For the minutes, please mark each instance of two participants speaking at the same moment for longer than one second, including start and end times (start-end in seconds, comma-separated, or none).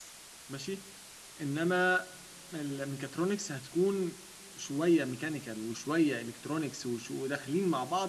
none